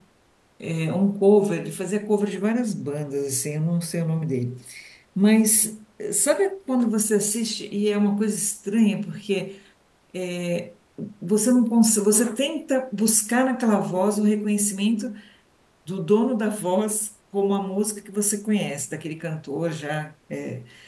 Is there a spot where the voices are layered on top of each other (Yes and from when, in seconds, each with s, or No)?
No